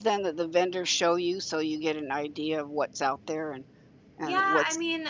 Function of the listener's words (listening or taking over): taking over